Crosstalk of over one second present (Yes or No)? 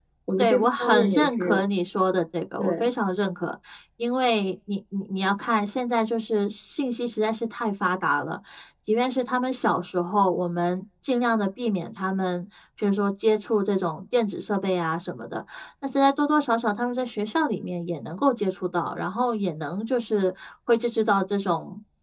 Yes